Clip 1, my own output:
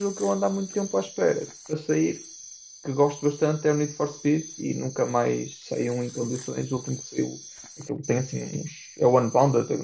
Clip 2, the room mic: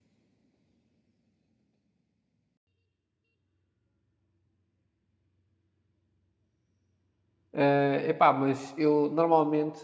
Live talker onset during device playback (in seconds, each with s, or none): 7.5 s